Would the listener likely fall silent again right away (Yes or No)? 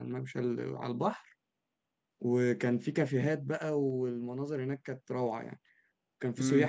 No